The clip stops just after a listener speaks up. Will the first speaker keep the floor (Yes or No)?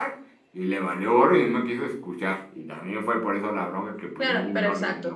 No